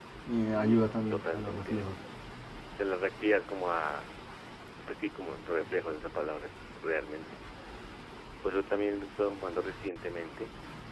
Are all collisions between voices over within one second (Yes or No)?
No